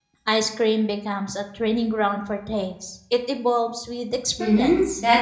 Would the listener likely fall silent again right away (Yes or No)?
No